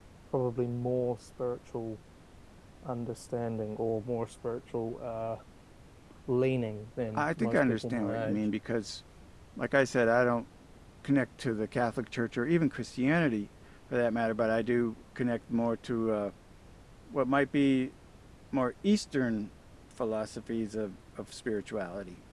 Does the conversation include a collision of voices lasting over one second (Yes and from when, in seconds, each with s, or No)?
Yes, from 7.2 s